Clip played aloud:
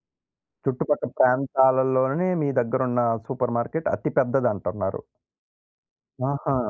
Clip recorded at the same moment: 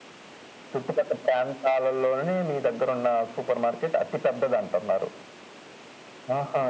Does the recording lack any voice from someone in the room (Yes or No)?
Yes